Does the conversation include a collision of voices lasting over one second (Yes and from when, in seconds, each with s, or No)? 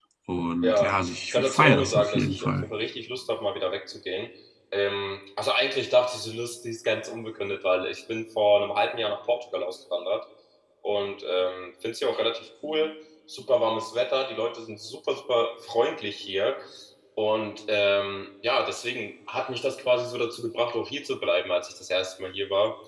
Yes, from 0.6 s